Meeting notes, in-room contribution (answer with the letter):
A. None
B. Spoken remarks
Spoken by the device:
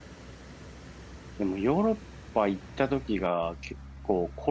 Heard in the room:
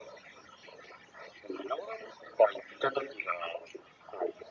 A